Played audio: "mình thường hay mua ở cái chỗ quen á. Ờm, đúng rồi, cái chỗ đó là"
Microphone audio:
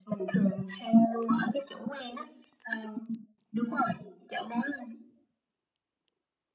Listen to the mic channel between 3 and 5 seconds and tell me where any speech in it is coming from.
echo only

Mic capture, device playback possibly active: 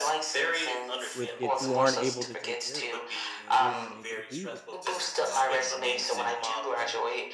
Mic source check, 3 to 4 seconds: both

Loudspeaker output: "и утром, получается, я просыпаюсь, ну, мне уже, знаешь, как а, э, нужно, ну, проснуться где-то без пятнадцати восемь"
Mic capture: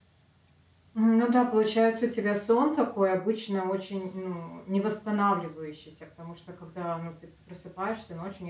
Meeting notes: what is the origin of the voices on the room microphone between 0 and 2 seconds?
user only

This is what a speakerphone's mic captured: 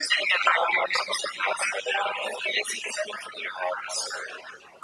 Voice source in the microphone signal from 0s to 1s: echo only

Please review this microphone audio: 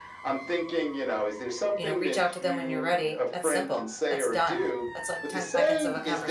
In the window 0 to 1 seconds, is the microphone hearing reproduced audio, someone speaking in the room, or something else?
echo only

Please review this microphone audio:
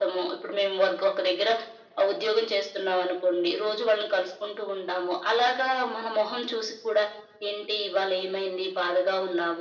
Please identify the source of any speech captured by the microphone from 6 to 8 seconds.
echo only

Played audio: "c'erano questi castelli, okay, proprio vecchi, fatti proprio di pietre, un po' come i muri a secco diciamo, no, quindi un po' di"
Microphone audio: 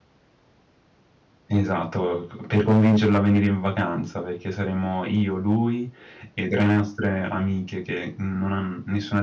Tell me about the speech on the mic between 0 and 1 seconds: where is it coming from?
neither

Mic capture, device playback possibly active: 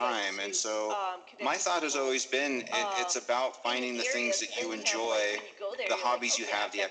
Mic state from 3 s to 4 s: echo only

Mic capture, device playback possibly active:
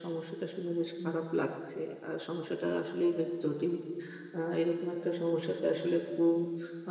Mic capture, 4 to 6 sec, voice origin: echo only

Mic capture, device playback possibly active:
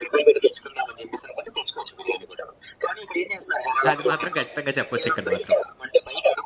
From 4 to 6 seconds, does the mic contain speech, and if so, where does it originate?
both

